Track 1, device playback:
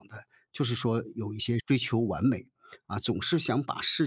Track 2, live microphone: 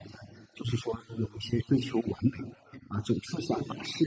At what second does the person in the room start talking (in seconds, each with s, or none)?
none